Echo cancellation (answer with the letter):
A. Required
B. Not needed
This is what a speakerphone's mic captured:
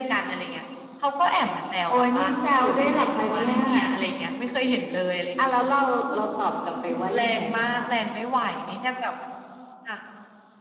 A